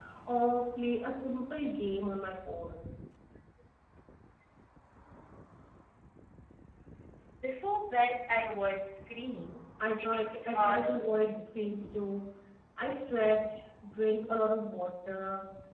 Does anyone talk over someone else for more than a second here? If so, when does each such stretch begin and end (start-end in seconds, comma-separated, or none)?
10.0-11.9